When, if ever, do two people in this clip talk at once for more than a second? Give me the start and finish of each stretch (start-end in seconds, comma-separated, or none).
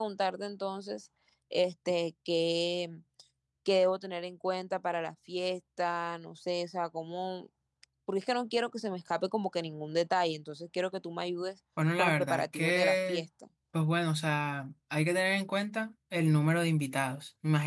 12.0-13.2